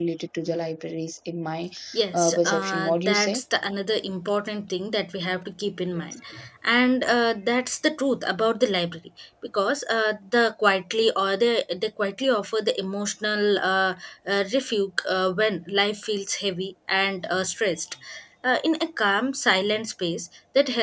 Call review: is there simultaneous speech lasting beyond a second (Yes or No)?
Yes